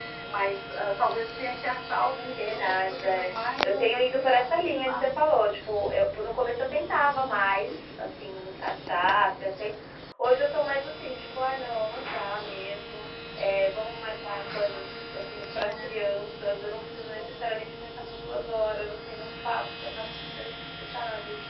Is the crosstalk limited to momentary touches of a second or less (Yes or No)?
No